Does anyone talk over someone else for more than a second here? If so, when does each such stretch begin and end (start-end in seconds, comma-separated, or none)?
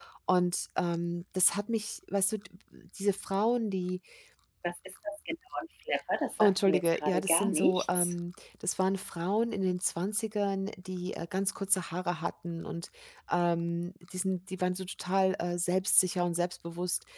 6.4-8.1